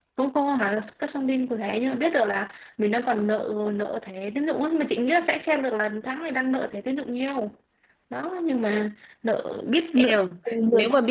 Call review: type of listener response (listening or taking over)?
taking over